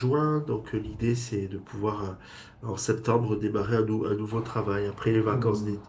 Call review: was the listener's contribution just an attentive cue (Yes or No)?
No